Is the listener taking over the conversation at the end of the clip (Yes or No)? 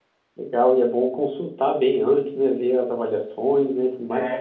Yes